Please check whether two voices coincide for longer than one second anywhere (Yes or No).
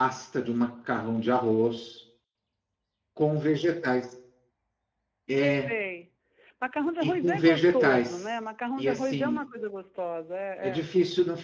Yes